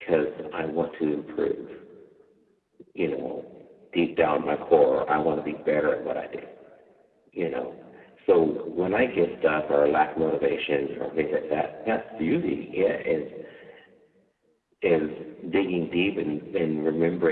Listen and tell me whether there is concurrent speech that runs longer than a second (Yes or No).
No